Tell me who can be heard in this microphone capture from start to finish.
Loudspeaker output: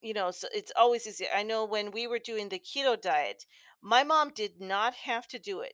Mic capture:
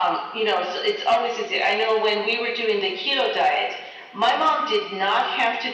echo only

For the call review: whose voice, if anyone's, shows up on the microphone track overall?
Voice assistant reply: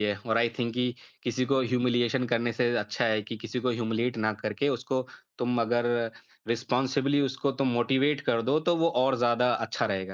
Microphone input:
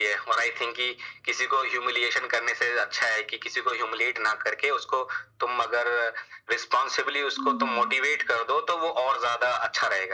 both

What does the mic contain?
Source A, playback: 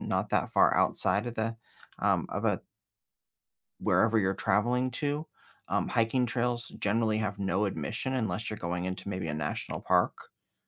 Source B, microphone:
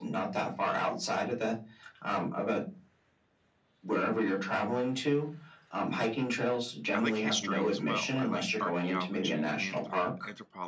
both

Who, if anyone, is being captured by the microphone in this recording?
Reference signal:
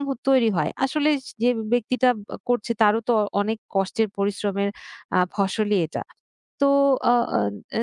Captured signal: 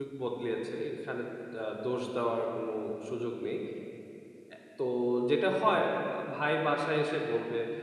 user only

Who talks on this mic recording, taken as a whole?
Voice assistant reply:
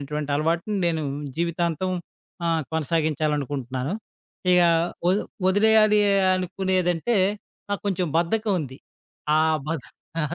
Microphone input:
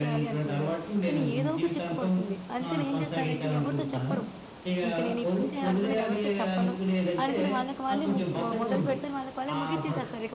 both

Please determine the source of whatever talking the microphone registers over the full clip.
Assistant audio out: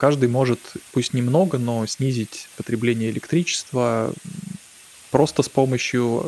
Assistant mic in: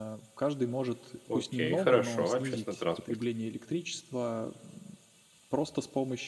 both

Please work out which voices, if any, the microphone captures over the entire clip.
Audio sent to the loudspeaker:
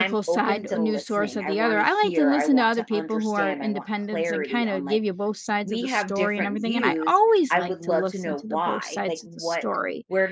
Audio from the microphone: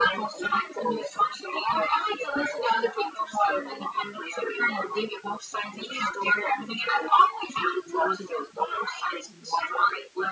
echo only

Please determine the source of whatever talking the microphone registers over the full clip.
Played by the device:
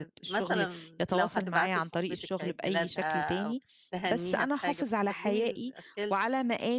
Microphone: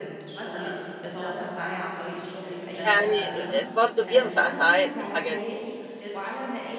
both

